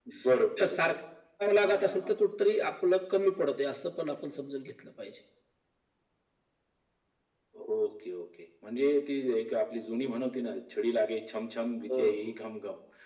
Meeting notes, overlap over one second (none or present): none